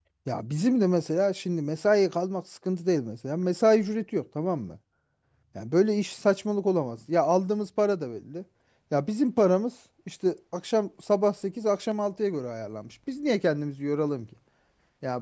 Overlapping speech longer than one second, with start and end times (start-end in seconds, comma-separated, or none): none